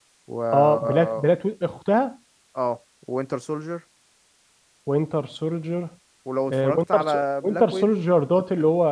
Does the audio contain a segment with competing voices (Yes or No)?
Yes